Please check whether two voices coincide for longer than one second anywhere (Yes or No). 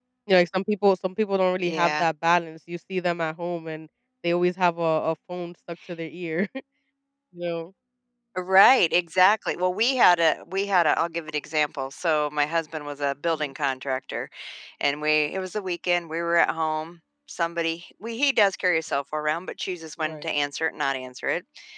No